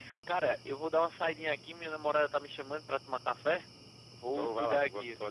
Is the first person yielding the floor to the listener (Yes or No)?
Yes